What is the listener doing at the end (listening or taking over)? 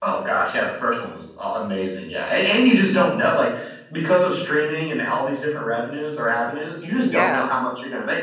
listening